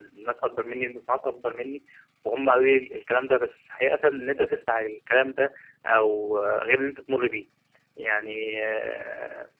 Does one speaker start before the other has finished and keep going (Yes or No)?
No